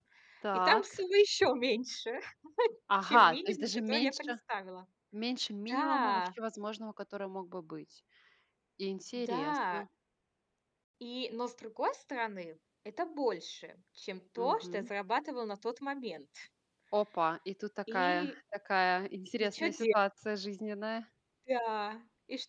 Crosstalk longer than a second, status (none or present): present